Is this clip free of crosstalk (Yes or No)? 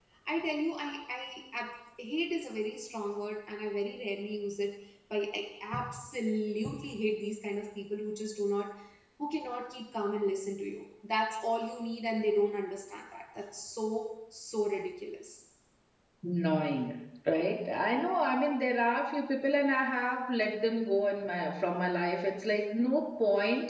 Yes